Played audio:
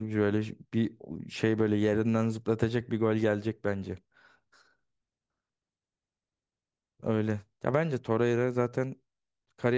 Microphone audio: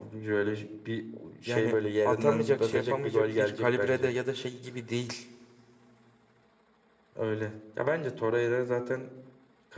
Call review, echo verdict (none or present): present